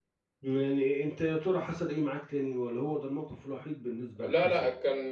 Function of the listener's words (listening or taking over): taking over